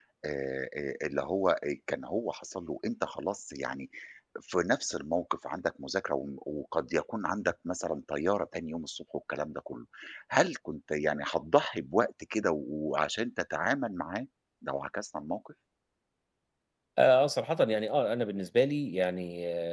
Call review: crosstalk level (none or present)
none